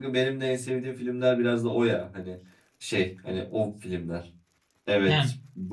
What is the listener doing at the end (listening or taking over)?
listening